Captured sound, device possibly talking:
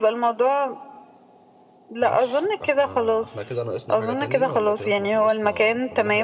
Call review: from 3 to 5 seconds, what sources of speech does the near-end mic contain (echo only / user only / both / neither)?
both